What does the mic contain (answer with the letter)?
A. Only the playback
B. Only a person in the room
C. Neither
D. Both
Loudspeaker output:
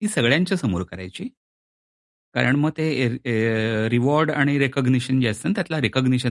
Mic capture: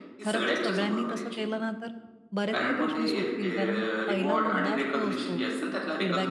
D